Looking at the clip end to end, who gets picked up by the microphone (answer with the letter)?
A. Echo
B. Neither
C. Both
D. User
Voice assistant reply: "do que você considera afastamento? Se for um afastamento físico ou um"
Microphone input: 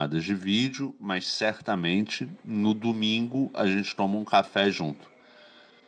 D